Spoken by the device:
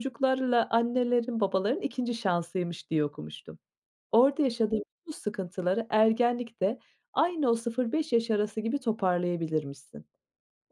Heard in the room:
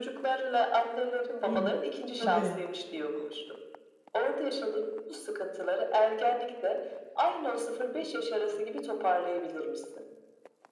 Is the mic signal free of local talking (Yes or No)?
No